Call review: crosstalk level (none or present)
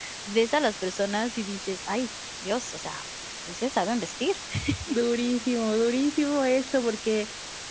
none